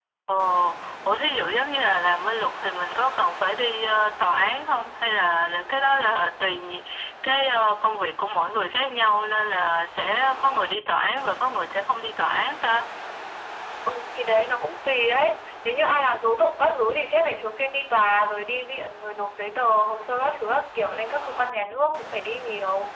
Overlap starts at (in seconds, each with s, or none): none